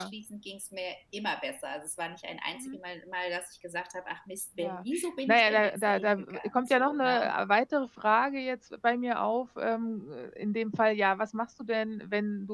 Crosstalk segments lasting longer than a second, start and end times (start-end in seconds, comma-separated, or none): 5.3-7.3